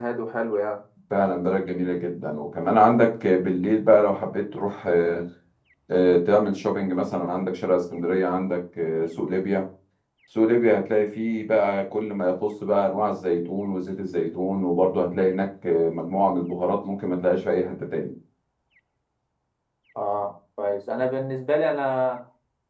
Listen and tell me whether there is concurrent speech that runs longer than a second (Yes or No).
No